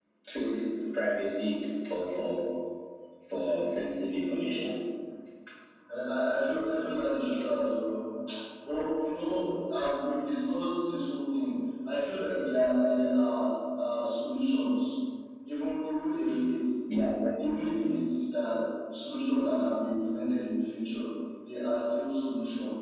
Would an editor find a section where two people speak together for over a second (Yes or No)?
No